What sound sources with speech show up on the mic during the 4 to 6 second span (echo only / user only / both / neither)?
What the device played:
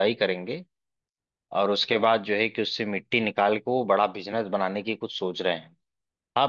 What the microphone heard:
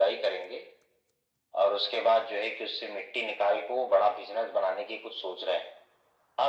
echo only